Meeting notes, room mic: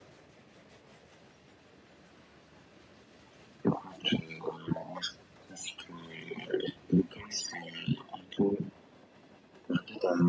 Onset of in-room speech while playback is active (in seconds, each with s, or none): none